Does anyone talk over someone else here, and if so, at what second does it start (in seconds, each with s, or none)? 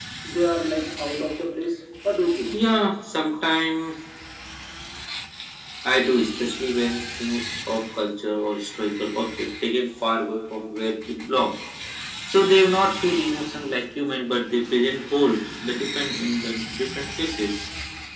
none